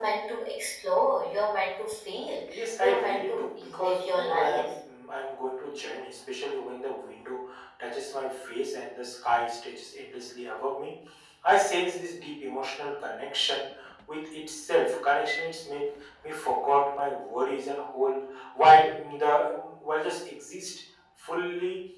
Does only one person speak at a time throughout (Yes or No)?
No